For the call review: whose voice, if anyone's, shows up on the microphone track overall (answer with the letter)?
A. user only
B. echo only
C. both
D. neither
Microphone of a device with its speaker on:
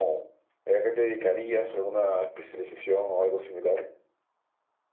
B